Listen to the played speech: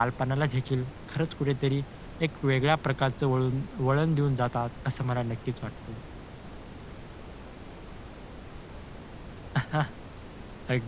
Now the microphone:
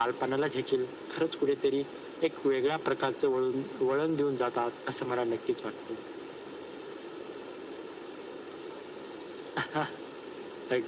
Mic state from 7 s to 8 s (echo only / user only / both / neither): neither